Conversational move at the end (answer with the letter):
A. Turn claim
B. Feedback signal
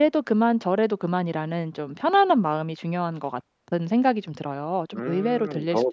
A